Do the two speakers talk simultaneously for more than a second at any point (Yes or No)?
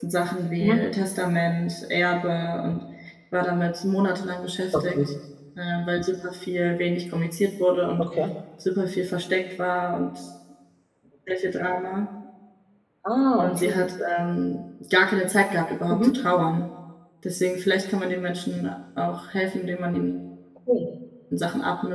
No